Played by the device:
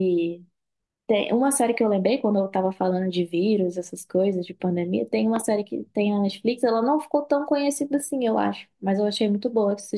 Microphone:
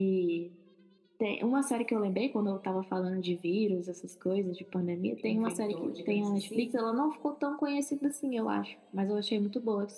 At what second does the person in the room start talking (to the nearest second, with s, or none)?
5 s